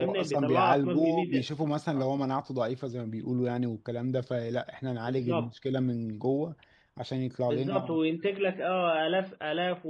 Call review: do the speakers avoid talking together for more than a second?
No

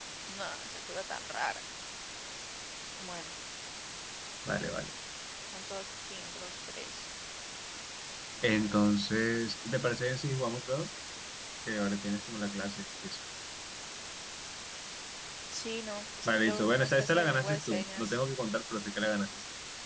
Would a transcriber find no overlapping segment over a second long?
No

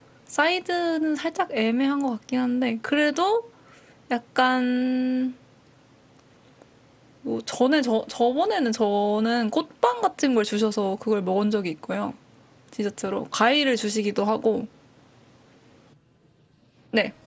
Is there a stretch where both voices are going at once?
No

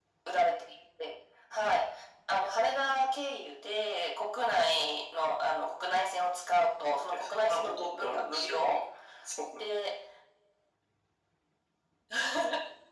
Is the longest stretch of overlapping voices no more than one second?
No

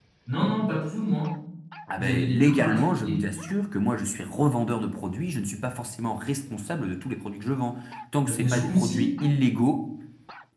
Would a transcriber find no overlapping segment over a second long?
No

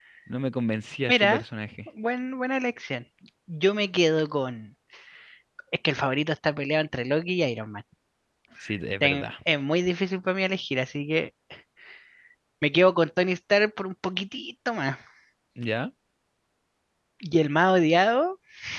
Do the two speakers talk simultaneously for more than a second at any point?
No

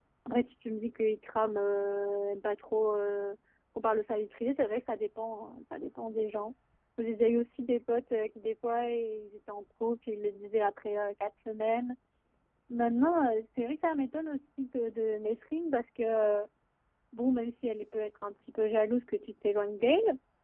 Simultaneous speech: No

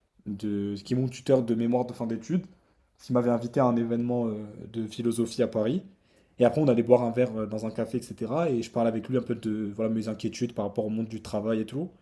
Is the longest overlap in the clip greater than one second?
No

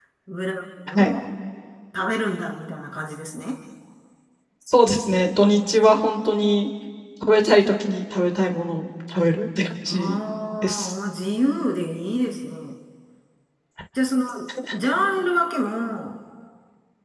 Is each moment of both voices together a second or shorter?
Yes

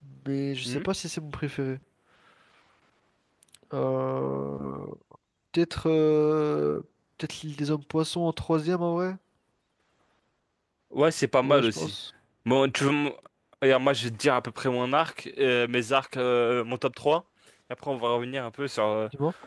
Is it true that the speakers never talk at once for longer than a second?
Yes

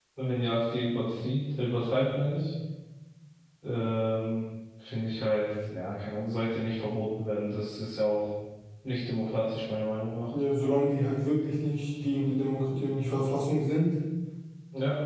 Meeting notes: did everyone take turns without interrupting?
Yes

